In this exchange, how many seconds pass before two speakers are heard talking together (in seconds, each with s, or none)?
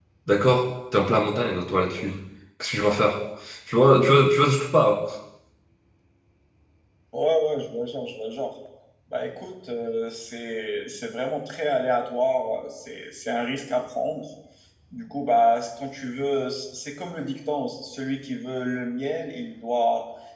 none